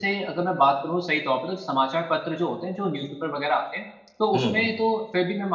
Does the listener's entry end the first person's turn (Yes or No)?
No